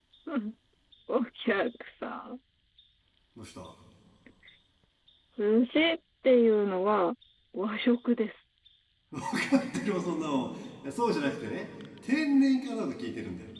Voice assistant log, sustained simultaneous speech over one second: none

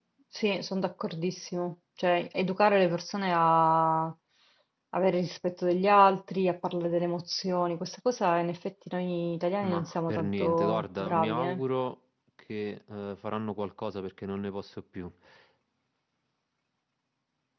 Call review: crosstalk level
present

